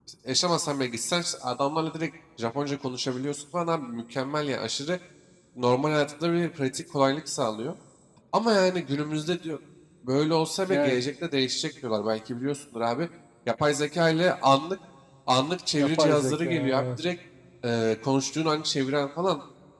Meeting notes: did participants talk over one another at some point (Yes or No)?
Yes